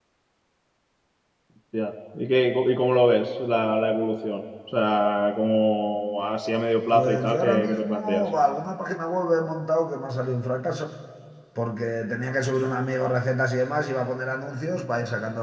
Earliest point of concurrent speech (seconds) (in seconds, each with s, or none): 6.9 s